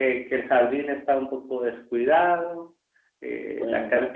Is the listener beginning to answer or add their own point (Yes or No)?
No